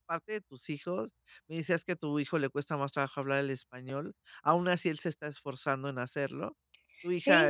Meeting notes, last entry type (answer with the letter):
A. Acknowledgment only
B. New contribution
B